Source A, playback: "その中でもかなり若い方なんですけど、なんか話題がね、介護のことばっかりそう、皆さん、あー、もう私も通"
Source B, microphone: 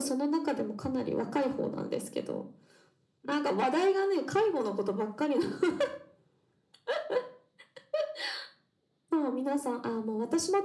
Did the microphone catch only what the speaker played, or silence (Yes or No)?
Yes